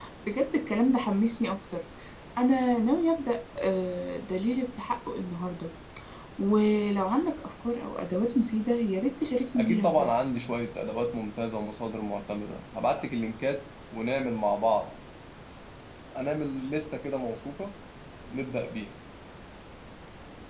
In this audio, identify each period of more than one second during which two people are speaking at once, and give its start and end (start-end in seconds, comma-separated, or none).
none